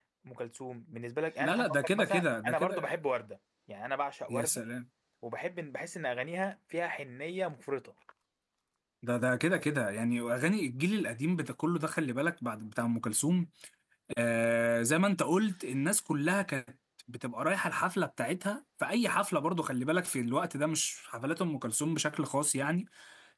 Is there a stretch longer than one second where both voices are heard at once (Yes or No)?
Yes